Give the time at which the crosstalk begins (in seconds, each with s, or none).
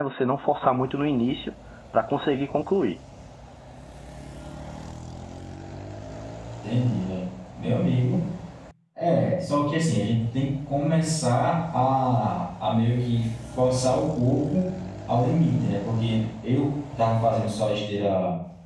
none